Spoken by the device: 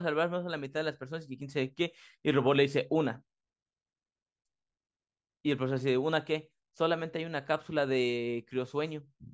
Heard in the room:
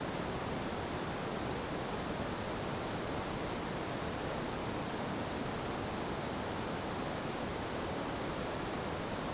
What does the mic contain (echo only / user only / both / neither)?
neither